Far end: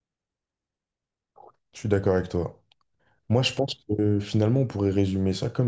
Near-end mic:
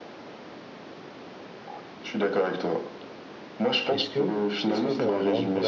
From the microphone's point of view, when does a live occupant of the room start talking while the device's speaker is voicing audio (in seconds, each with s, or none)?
3.9 s